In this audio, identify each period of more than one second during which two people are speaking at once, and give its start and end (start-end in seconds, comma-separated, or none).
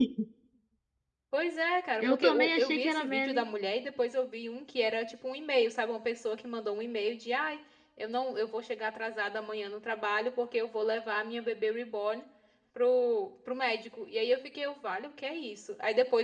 2.0-3.4